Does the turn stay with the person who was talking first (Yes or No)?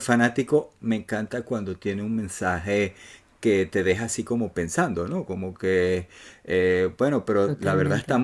Yes